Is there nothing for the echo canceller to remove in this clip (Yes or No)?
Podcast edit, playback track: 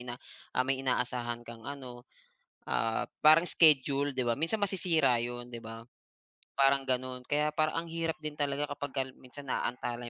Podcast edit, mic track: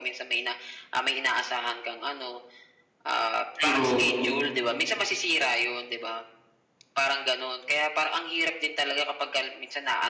No